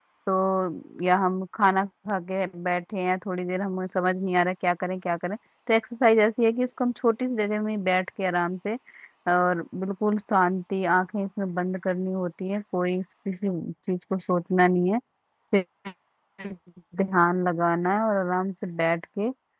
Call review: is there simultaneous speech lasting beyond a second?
No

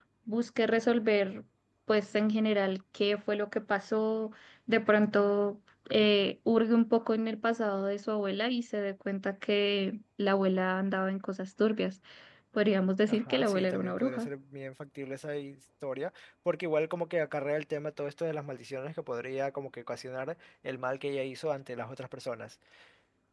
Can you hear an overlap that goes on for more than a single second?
Yes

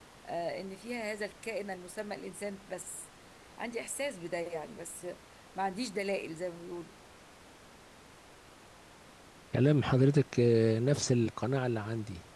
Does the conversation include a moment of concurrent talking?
No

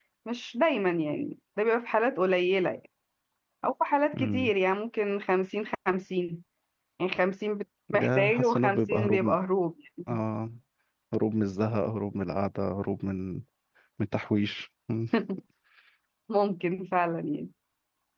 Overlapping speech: Yes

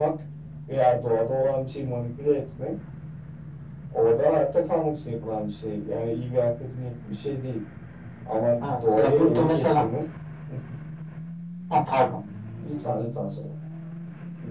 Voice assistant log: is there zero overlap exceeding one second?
No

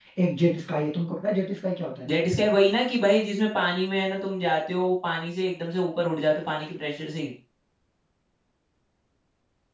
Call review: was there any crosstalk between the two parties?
No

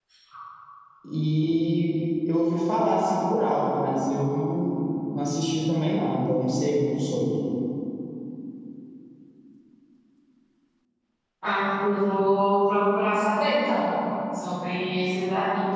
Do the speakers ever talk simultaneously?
No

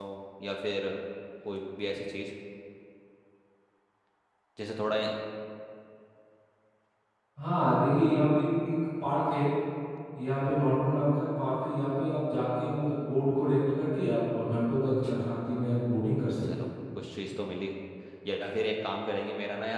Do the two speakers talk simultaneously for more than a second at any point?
No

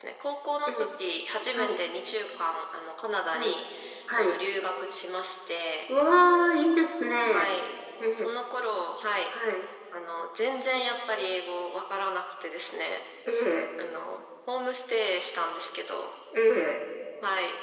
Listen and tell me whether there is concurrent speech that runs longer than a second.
No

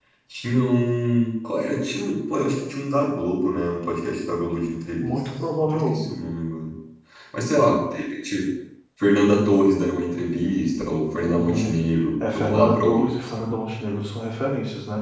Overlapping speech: Yes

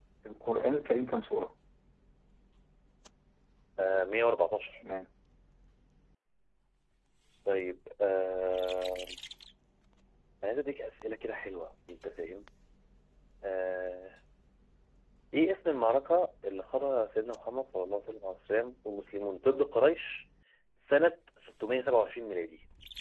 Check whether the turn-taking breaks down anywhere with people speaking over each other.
No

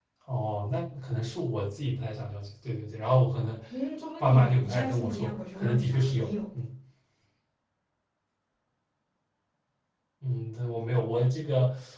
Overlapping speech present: Yes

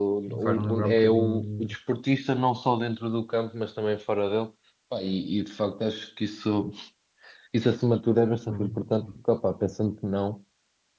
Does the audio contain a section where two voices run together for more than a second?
Yes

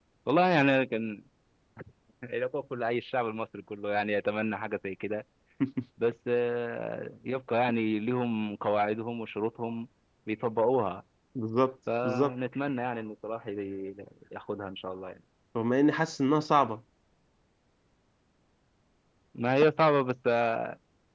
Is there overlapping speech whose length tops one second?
No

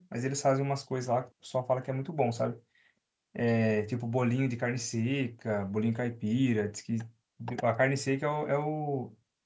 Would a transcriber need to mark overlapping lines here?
No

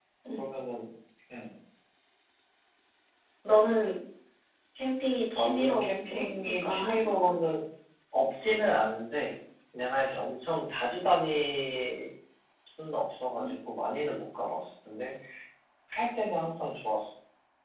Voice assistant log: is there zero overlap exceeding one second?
No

